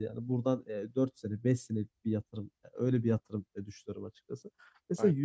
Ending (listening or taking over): listening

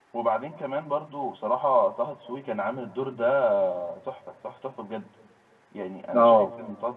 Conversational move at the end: listening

